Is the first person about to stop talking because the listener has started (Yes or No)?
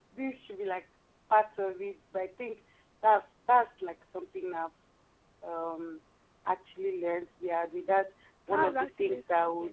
Yes